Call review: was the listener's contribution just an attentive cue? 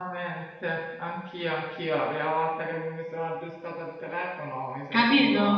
Yes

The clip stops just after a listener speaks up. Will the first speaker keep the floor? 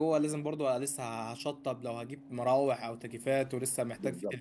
Yes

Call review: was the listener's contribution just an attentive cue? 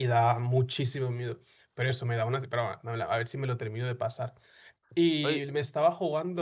Yes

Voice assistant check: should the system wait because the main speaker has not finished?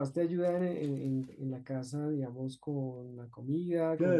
No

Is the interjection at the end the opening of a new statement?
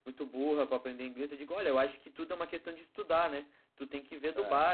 No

